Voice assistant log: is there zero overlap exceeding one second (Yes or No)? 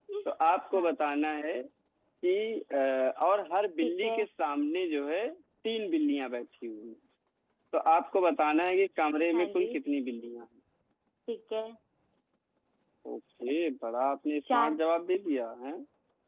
Yes